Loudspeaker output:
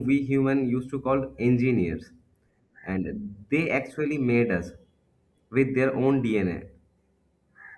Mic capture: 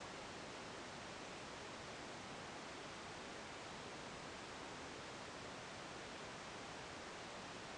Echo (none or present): none